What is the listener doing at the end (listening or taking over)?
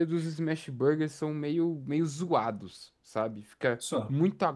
listening